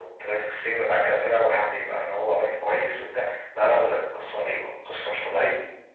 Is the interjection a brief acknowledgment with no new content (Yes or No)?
No